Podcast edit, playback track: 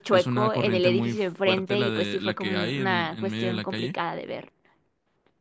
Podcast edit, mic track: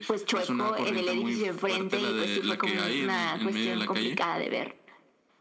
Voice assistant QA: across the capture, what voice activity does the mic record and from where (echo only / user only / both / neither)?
echo only